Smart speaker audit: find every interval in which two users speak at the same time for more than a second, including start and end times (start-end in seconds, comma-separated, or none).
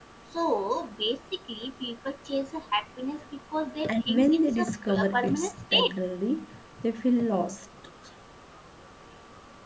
3.9-5.9